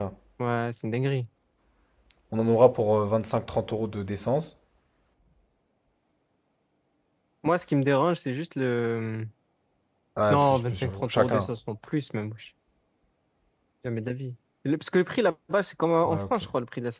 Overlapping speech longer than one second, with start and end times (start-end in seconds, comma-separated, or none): 10.3-11.5